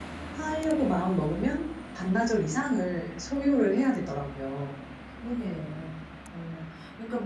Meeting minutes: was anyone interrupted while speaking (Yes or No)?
No